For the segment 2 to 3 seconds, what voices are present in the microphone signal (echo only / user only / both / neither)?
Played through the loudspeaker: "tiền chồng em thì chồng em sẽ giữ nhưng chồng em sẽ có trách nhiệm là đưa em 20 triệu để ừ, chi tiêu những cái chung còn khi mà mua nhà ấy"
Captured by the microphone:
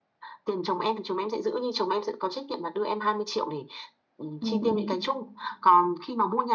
echo only